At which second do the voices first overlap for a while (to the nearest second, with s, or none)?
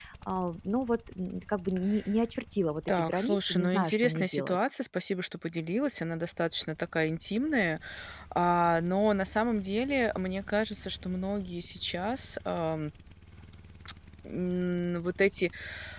3 s